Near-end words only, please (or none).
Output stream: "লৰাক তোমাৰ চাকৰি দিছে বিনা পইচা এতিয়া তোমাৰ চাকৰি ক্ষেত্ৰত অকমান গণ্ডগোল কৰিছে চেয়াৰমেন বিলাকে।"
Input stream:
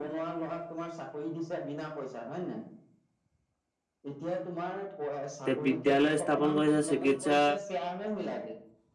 এতিয়া বিদ্যালয় স্থাপন কৰিছে, চিকিৎসা